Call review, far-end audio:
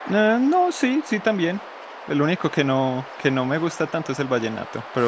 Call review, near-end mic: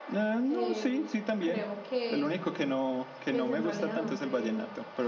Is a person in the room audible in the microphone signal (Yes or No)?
Yes